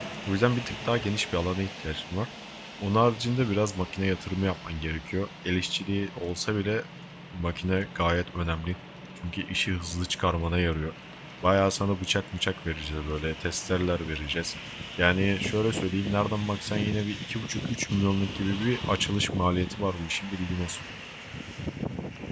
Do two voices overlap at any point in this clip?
No

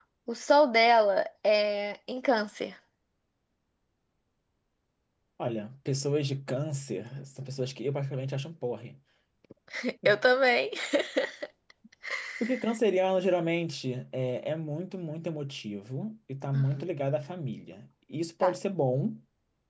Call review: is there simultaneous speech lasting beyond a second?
No

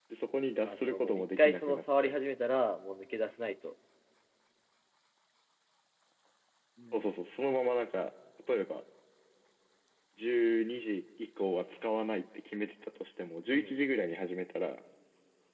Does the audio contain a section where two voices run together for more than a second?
Yes, from 0.7 s

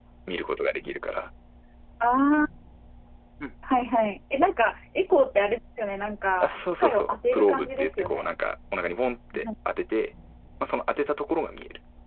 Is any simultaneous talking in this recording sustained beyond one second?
Yes, from 6.4 s

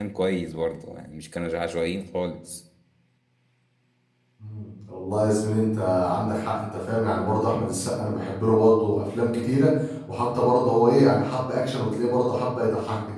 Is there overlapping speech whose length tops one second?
No

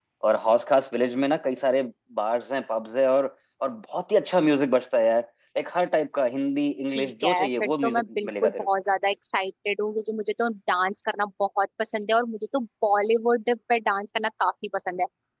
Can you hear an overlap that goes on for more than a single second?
Yes, from 6.9 s

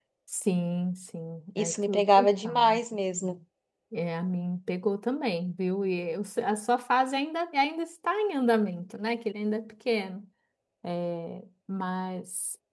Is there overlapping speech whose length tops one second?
Yes, from 1.6 s

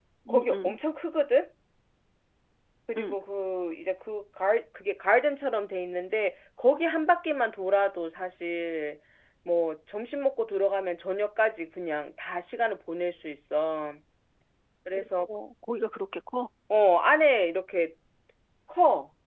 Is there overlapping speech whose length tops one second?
No

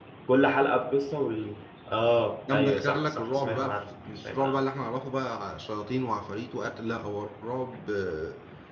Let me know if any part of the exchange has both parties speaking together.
Yes, from 2.5 s

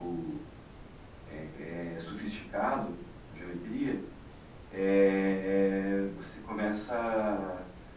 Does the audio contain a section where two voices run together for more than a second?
No

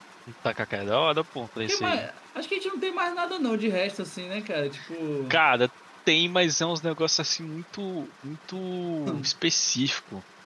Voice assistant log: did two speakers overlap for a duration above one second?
No

